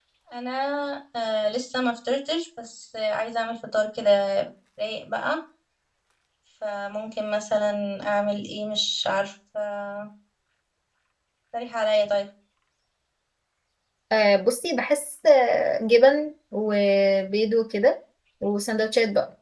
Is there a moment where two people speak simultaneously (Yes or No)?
No